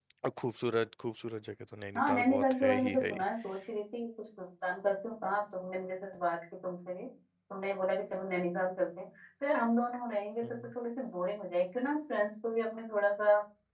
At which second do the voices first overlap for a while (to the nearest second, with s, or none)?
2 s